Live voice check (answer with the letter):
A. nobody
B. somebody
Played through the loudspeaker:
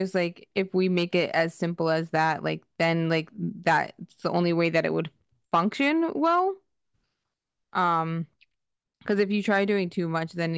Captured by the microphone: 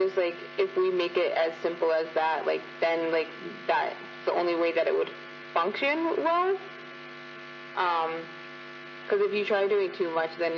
A